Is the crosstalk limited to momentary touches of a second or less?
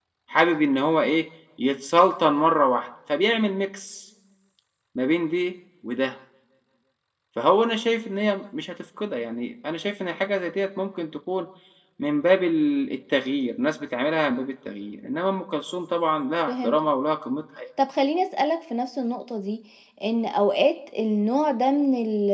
Yes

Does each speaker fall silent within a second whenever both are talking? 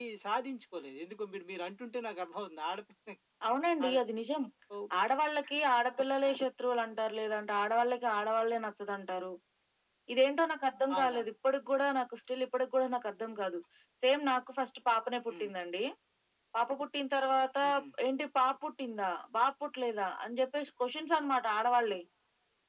Yes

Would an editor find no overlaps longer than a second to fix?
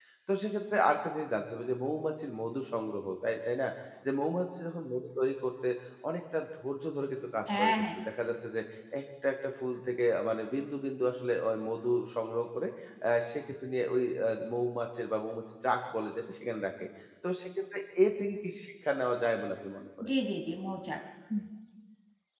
Yes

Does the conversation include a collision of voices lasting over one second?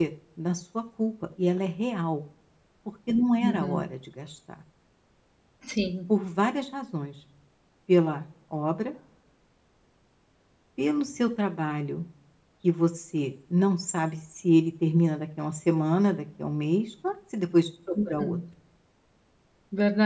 No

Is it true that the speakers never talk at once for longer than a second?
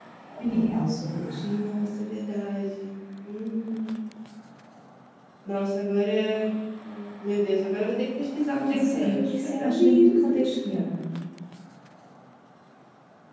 No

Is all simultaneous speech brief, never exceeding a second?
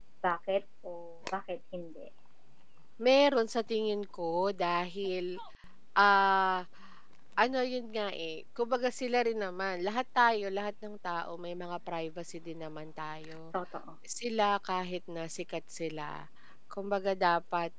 Yes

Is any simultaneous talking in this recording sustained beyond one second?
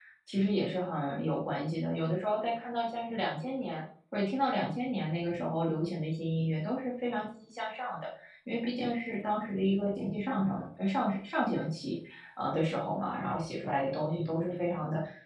No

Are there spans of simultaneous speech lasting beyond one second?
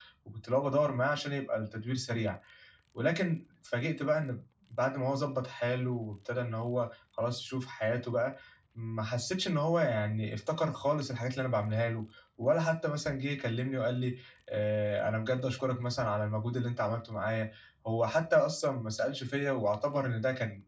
No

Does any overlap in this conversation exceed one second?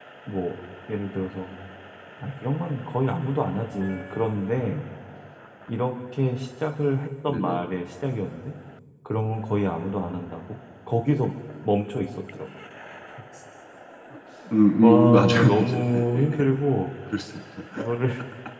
Yes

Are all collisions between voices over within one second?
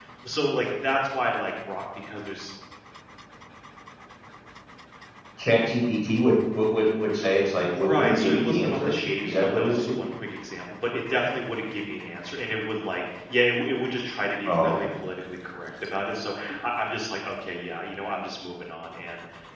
No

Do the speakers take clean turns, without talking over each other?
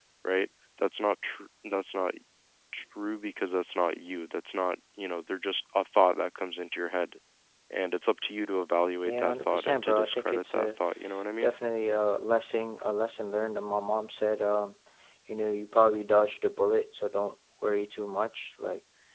No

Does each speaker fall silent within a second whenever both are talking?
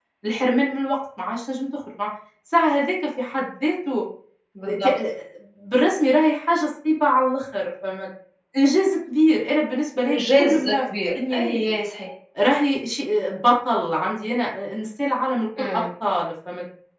No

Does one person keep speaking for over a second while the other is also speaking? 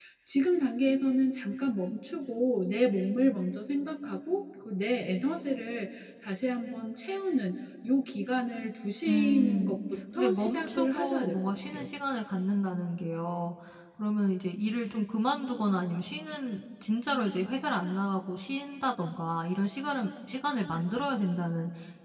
Yes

